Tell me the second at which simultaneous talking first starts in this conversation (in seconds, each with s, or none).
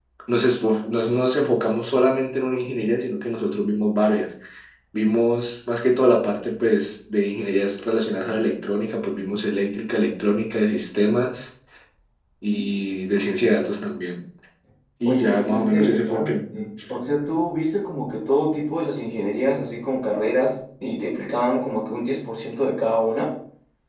15.1 s